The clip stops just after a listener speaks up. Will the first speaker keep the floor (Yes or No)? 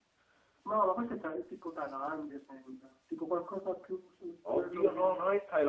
No